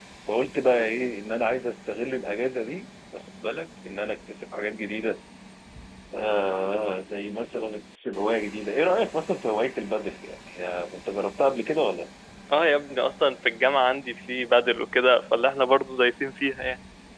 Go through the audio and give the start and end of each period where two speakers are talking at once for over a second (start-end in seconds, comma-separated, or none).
none